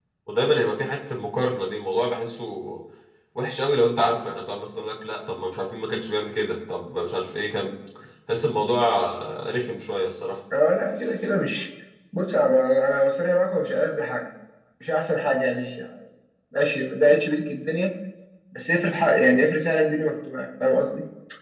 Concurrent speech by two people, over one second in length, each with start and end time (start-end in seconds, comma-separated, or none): none